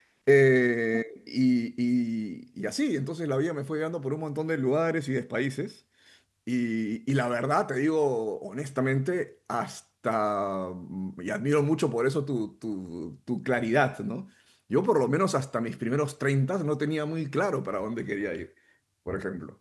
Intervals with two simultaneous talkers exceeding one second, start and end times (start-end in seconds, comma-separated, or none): none